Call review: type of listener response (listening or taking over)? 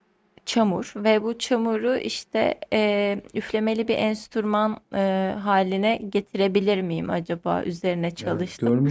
taking over